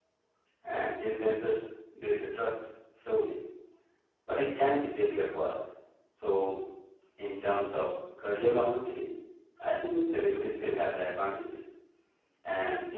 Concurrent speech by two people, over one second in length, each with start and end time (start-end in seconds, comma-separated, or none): none